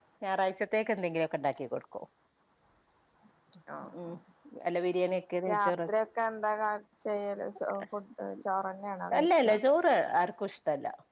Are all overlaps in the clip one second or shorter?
Yes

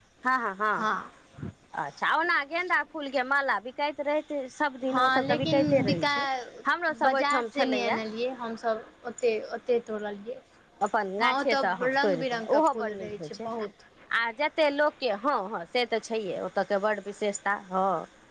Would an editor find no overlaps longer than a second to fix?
No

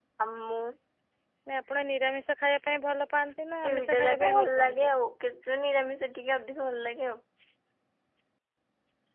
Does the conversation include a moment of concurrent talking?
Yes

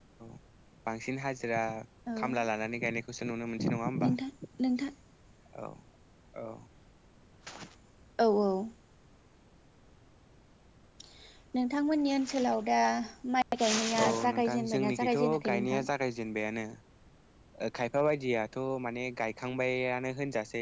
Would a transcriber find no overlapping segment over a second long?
No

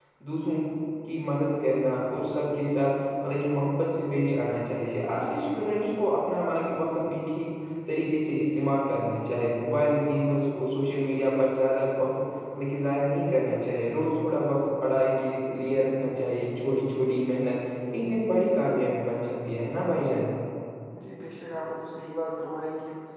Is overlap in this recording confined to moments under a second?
Yes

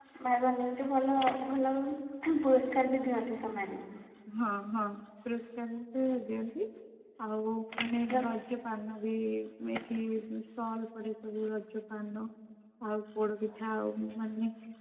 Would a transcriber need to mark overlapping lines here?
No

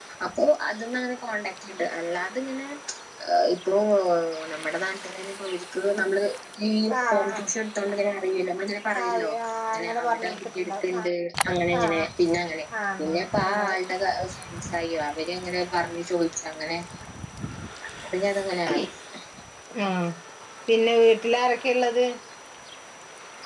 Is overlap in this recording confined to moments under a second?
No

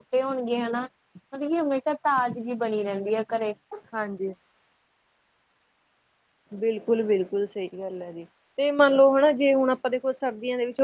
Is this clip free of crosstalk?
Yes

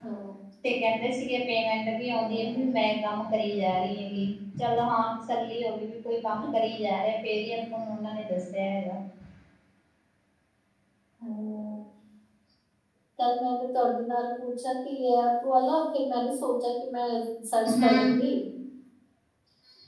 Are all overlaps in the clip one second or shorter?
Yes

